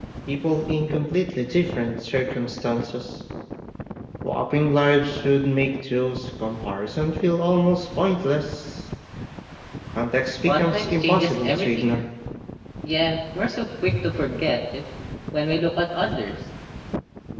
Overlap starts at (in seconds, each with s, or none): 10.4 s